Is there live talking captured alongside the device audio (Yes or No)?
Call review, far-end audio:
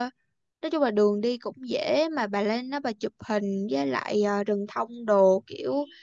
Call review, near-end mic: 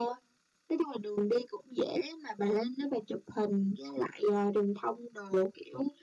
No